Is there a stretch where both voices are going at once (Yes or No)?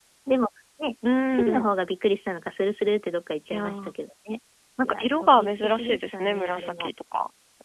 Yes